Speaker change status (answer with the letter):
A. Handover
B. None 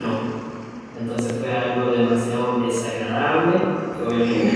B